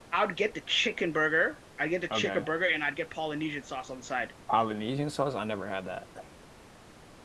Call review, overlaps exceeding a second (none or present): none